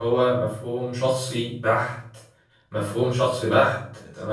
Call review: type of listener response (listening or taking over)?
listening